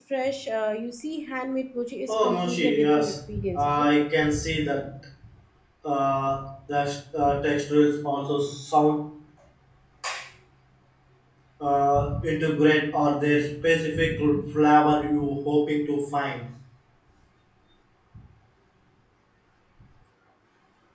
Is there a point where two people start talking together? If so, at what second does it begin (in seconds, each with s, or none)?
2.1 s